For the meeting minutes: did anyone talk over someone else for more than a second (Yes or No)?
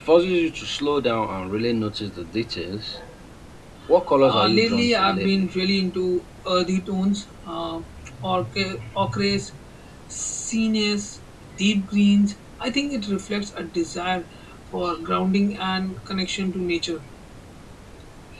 Yes